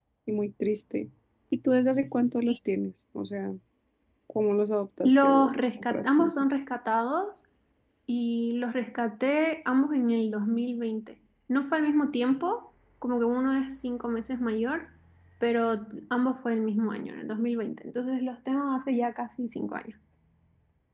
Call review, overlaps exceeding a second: present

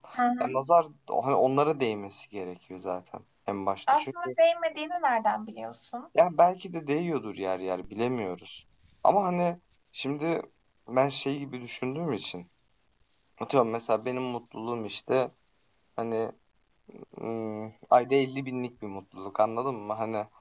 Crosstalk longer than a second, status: none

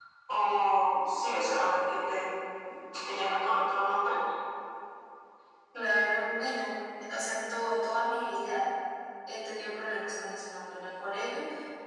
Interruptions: none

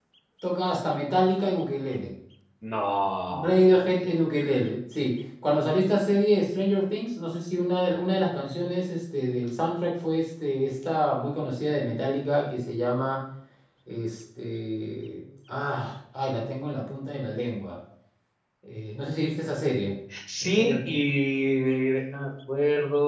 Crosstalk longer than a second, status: none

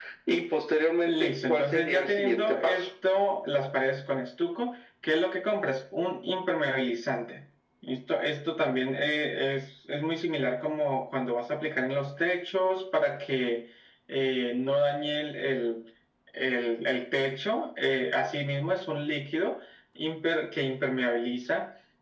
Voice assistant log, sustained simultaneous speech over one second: present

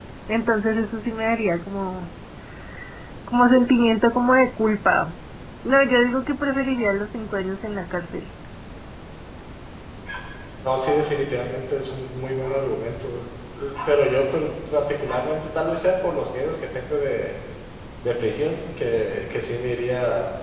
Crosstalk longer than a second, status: none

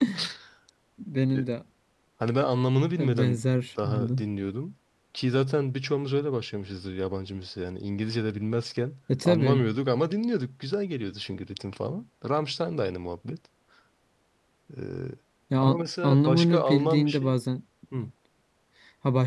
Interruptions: present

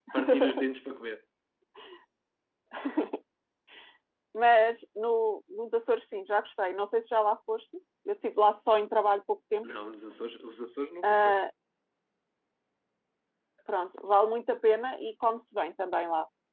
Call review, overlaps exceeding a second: none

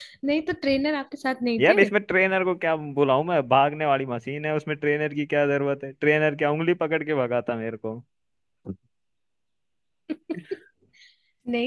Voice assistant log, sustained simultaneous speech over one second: none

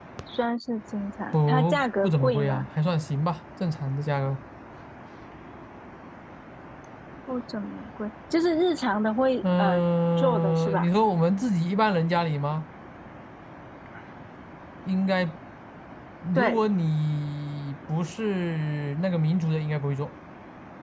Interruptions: present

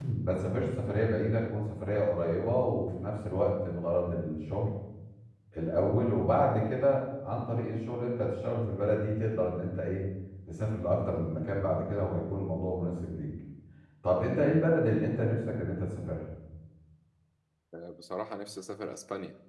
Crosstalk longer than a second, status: none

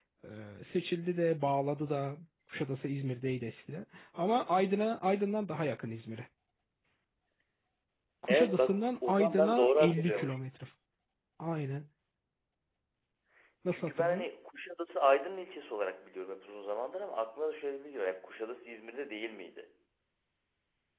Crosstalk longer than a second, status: present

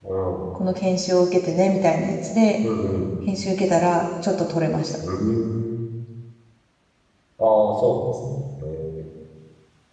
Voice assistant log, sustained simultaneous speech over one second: none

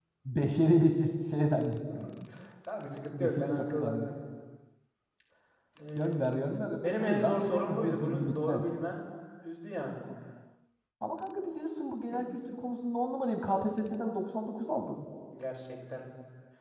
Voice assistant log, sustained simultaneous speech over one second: present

